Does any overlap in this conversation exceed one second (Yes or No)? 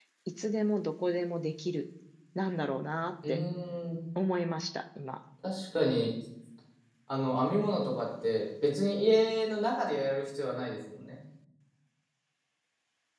No